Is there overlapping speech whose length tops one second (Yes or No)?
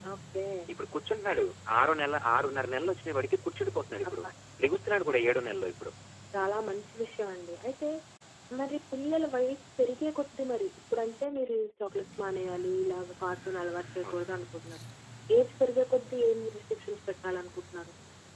No